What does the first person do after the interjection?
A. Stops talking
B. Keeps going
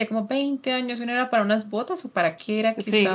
A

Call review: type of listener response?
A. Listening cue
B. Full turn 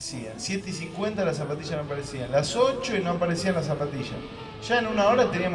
A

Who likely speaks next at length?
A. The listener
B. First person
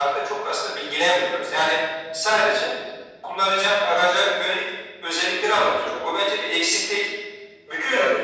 B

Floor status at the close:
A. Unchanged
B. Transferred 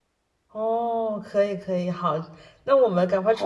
A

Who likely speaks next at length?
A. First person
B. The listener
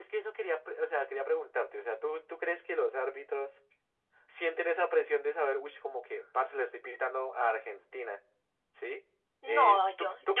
B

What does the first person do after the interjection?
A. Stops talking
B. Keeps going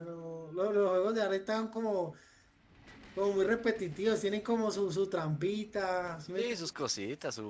A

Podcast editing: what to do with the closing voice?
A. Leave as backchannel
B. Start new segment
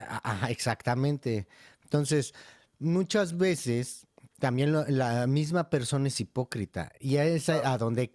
A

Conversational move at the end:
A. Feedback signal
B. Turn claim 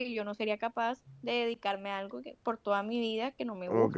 B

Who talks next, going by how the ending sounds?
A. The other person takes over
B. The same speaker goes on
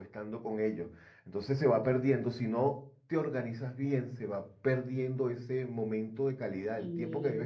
B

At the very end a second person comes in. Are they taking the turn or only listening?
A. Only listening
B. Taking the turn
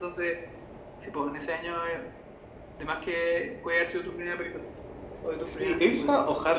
B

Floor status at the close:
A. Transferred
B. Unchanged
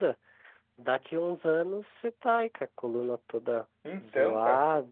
B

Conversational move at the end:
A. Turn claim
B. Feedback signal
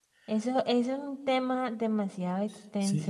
A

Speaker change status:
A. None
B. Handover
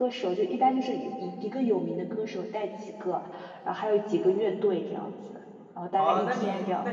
B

